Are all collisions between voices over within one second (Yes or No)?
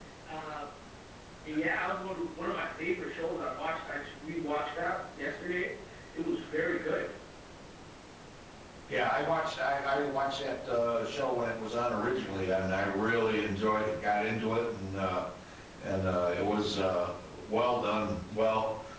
Yes